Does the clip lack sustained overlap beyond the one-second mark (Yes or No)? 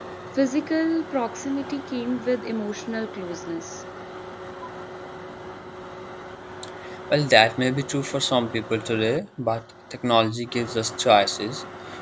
Yes